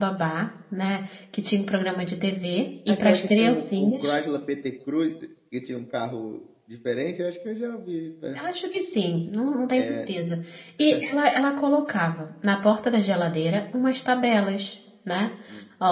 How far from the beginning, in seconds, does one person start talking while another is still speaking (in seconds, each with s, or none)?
2.9 s